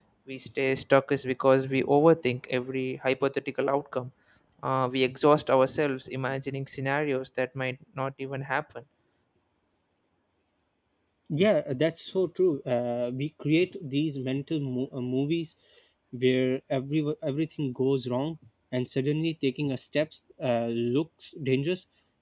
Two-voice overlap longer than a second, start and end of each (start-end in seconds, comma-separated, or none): none